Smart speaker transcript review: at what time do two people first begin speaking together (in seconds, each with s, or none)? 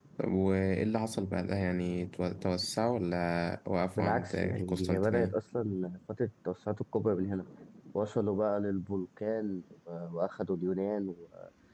4.0 s